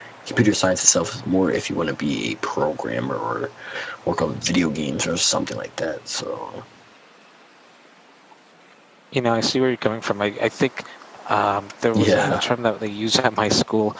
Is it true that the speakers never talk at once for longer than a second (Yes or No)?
Yes